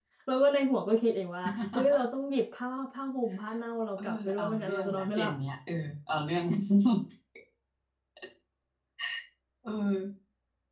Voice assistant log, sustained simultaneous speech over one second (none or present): present